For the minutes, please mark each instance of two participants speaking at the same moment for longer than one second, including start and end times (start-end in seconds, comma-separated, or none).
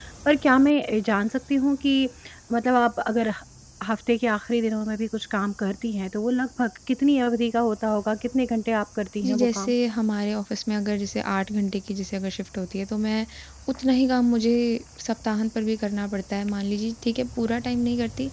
none